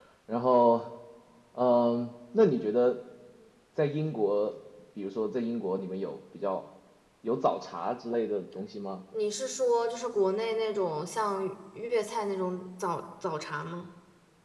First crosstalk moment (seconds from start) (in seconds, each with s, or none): none